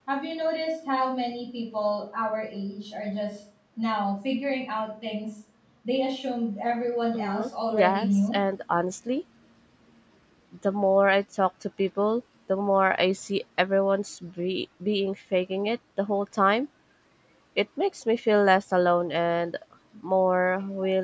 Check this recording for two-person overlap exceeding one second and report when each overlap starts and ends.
7.1-8.4

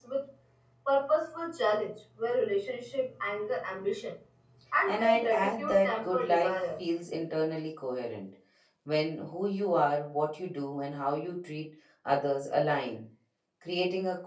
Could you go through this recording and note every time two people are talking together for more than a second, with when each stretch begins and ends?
4.9-6.6

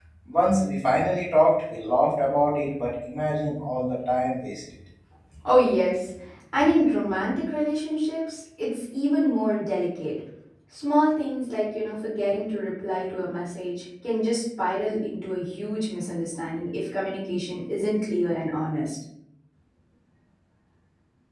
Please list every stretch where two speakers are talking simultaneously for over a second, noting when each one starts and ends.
none

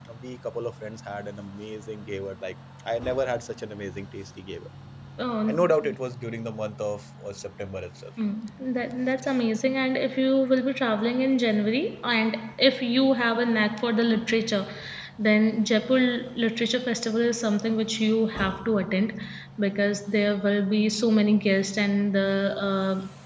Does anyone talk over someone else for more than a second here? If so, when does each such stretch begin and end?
none

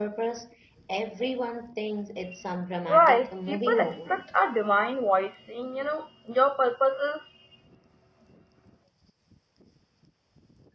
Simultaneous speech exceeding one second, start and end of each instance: 2.9-4.2

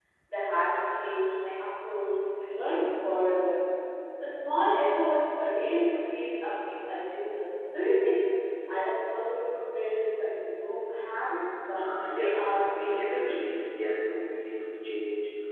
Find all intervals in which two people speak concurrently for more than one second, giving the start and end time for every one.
11.8-13.4

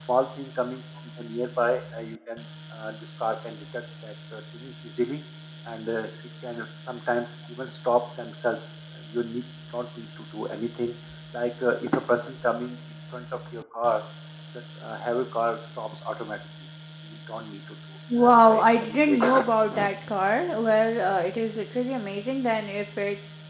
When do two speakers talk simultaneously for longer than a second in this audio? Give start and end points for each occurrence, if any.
18.2-19.4

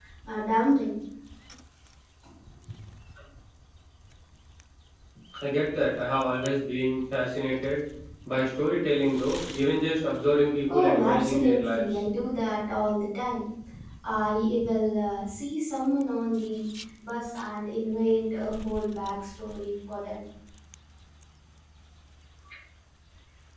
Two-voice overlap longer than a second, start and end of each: 10.7-12.0

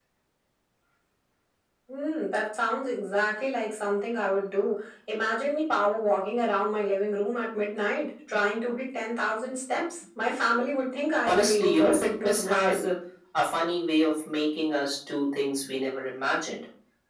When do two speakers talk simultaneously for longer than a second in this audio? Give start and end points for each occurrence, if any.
11.3-12.9

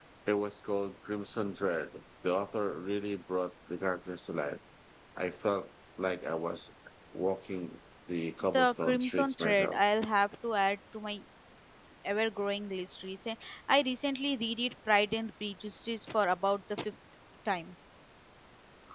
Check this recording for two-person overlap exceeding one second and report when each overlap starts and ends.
8.5-9.8

